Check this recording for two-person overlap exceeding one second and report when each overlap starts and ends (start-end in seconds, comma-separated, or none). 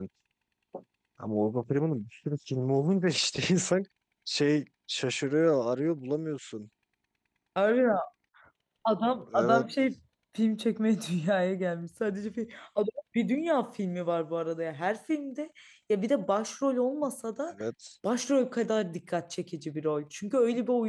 none